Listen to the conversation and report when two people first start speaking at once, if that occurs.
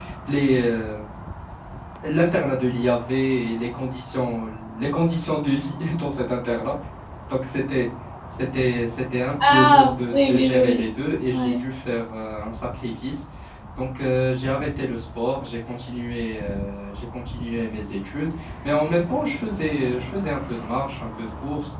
9 s

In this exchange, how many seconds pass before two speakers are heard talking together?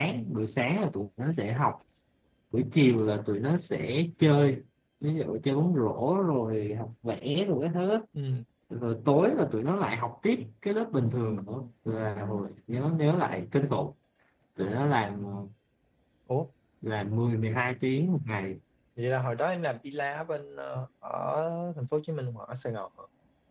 none

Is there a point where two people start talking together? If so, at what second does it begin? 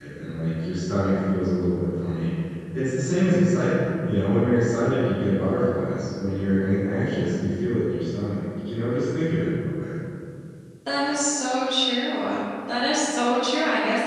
none

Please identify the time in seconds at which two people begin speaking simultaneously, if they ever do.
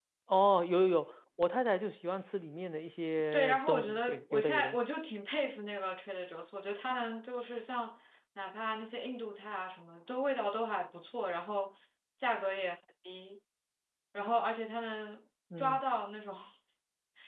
3 s

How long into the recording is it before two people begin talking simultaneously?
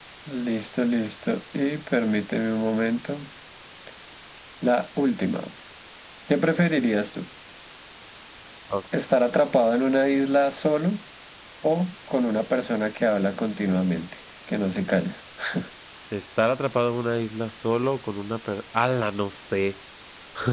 none

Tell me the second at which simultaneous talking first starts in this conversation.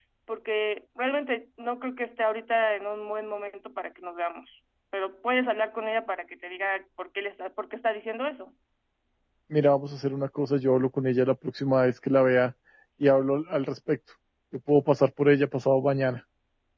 none

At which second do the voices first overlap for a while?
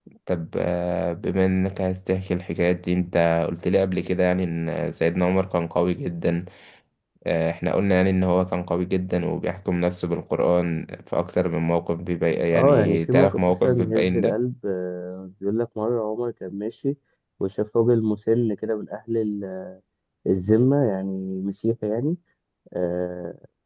13 s

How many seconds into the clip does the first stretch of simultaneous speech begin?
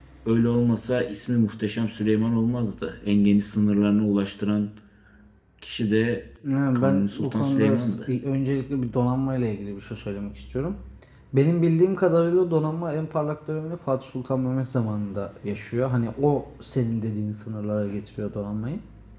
7 s

